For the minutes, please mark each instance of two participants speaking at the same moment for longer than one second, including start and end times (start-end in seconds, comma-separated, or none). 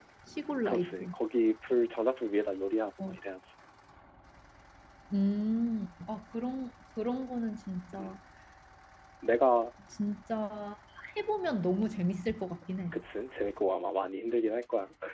none